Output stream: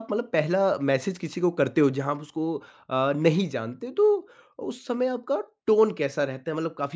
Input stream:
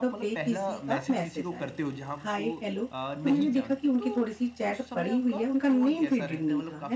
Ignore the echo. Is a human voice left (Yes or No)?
Yes